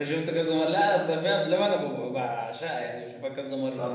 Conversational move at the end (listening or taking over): taking over